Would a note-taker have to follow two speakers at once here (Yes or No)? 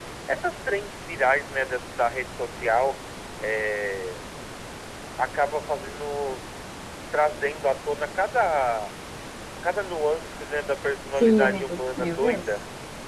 Yes